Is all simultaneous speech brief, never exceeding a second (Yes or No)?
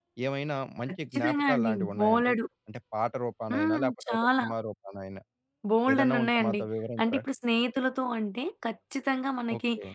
No